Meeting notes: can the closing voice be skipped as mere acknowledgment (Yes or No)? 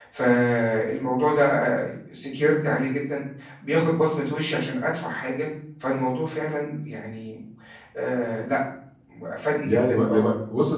No